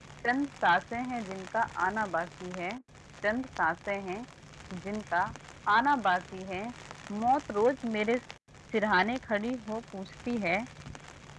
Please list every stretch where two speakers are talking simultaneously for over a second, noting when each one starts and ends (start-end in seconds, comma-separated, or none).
none